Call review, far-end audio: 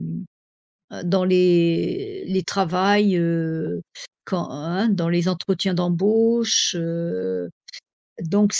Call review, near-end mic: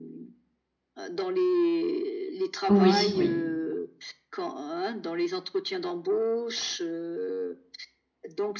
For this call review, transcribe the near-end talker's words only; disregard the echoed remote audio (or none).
Oui, oui,